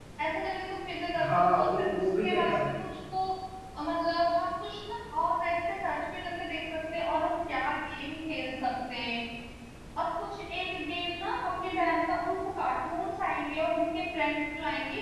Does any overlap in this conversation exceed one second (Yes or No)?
Yes